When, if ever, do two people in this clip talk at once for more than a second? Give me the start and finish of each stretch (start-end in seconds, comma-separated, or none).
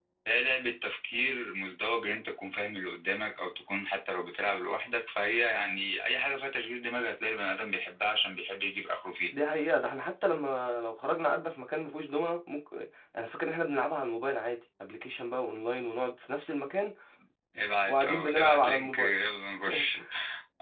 17.9-19.2